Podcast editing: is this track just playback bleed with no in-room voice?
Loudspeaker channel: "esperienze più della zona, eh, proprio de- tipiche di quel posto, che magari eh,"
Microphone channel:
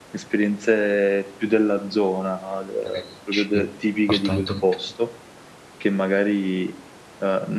No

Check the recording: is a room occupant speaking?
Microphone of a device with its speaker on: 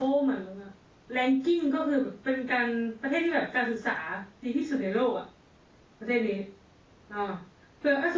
Yes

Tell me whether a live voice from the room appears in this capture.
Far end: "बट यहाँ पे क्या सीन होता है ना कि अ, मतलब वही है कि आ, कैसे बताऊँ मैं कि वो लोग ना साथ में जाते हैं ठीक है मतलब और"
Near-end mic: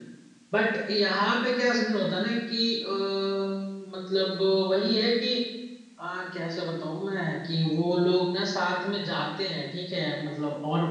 No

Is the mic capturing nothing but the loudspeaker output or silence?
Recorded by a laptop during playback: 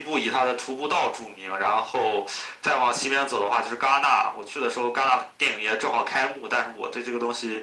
Yes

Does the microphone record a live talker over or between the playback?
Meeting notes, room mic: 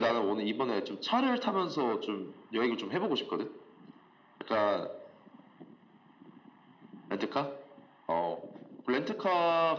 No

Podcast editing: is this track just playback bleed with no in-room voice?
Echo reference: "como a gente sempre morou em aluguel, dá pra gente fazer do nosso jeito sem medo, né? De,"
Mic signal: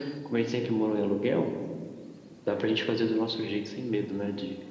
Yes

